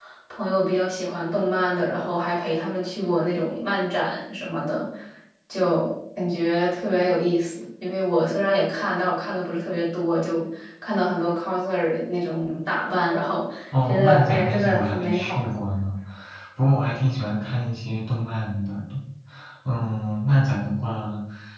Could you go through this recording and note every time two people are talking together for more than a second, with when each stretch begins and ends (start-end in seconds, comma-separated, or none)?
13.9-15.4